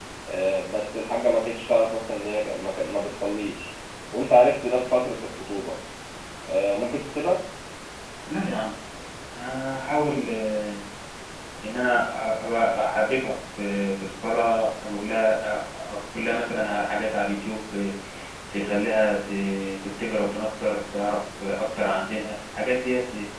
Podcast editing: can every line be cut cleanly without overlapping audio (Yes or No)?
Yes